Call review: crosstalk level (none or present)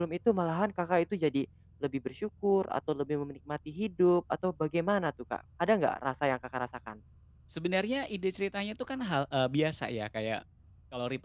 none